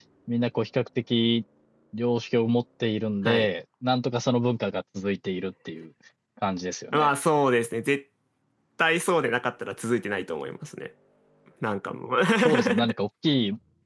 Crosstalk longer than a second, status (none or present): none